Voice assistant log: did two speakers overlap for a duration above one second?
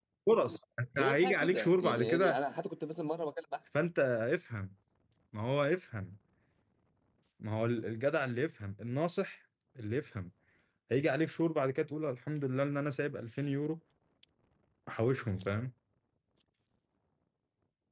Yes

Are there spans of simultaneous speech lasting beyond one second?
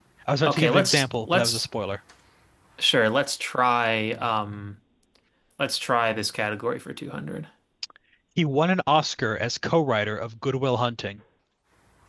Yes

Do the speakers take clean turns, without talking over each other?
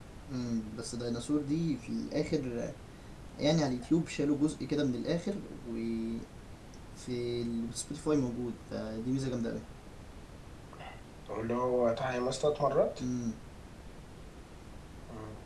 Yes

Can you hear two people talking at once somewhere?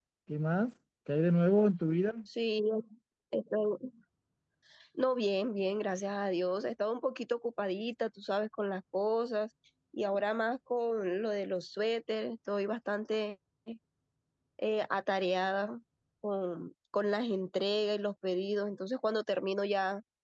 No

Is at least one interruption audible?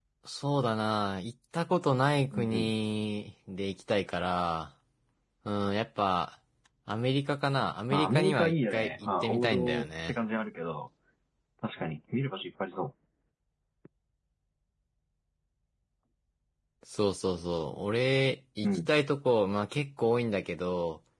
Yes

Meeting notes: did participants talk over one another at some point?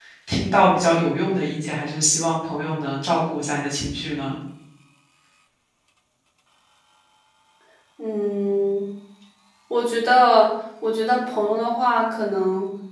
No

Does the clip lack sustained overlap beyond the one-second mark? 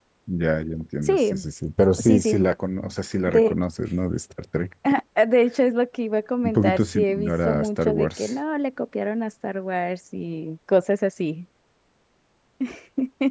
No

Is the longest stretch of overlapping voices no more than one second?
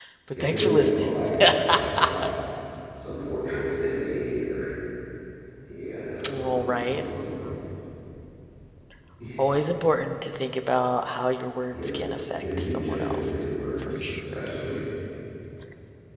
No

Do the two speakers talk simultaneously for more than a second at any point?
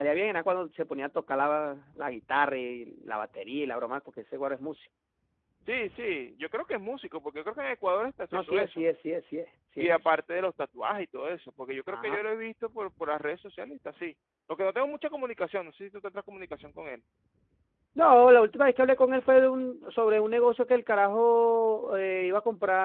No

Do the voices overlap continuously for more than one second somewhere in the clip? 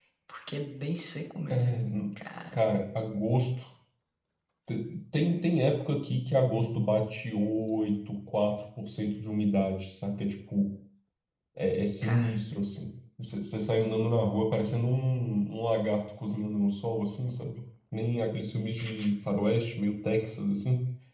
No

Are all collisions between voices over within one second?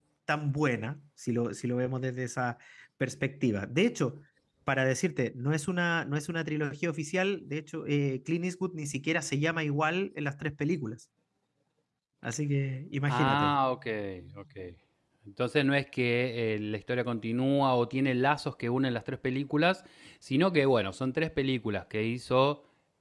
Yes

